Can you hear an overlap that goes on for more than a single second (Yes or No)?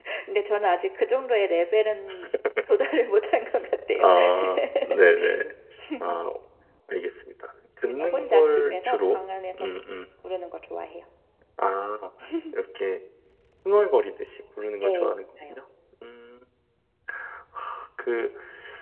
Yes